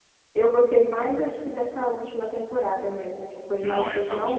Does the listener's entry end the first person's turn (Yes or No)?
Yes